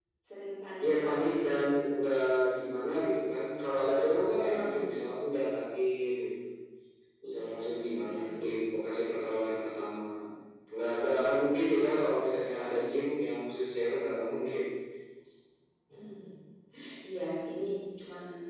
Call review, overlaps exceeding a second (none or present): none